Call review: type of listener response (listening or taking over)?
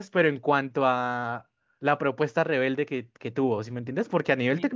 listening